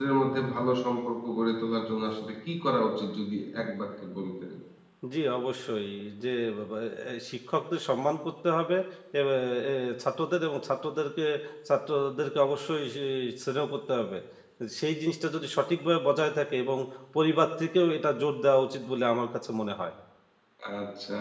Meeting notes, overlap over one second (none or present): none